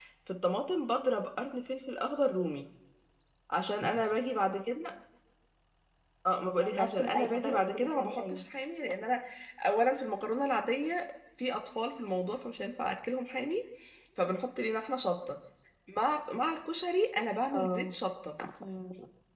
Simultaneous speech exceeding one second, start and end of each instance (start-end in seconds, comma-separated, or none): 6.7-8.4